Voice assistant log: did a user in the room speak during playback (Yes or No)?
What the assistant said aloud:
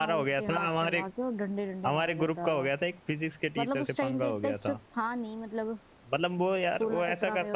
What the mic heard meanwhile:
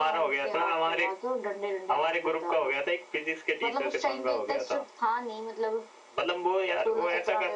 No